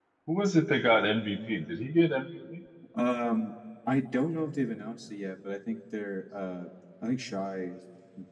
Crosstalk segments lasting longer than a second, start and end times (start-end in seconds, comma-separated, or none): none